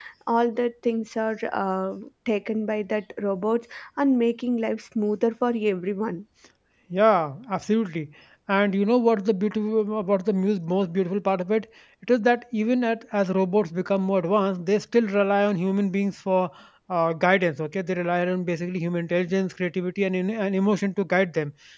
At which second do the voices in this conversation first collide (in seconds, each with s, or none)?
none